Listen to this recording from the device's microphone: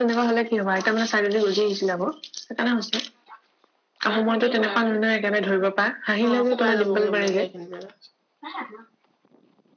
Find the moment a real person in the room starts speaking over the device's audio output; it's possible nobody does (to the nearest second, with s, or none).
6 s